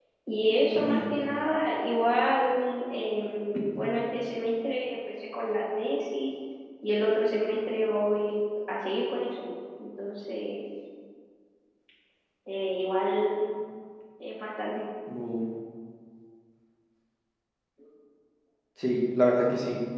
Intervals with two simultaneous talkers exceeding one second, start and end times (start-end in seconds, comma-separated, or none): none